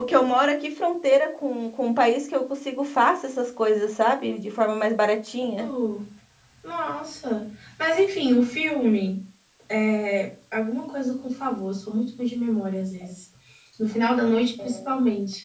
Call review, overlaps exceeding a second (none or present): none